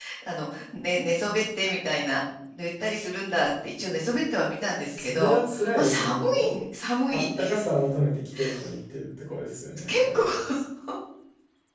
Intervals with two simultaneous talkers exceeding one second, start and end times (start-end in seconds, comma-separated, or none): 4.9-6.5